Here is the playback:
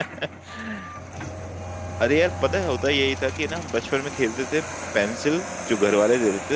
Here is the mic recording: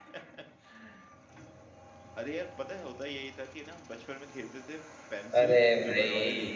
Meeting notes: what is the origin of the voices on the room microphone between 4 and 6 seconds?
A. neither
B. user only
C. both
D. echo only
C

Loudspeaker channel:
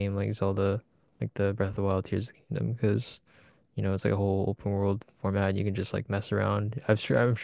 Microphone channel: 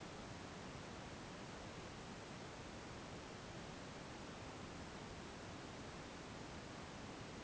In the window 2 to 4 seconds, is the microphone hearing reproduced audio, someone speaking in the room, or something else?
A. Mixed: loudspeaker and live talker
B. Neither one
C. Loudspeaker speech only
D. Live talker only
B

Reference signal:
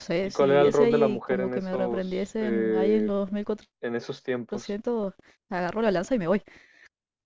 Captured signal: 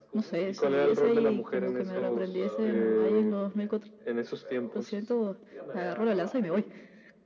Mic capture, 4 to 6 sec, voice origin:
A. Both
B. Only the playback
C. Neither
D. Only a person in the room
A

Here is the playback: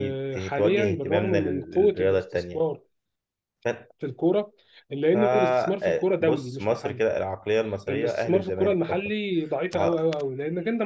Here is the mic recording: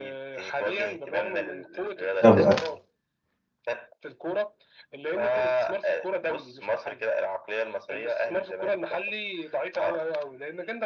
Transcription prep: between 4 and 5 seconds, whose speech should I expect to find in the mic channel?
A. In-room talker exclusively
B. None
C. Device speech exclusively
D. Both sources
C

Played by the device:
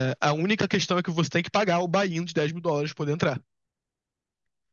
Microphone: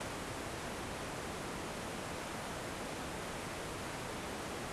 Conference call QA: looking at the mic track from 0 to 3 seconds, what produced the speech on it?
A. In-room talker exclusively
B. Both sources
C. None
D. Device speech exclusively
C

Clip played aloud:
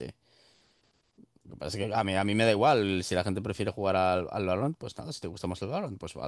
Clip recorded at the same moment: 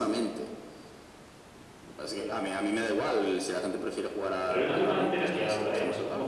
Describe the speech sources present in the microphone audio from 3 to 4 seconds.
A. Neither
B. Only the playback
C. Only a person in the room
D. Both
B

